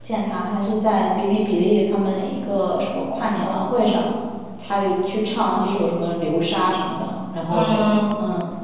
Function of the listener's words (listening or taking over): taking over